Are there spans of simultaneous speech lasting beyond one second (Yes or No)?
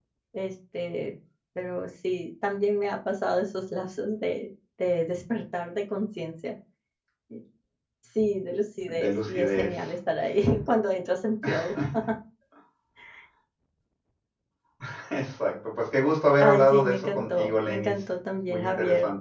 Yes